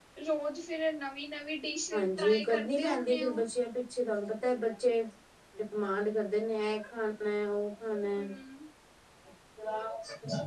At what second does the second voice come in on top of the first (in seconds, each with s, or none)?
1.9 s